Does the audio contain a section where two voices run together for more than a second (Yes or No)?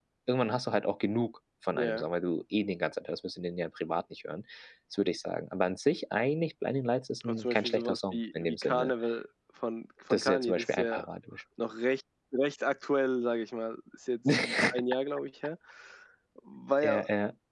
Yes